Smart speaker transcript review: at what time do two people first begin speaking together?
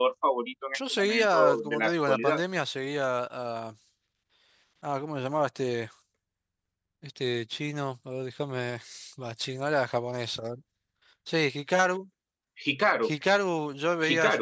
0.7 s

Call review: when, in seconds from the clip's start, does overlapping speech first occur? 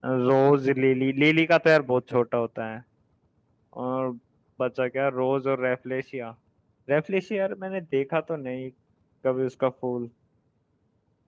none

